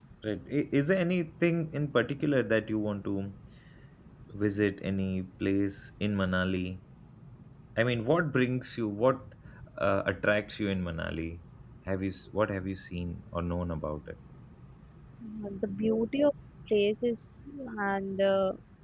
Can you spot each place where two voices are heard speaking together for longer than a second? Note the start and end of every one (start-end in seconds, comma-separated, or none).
none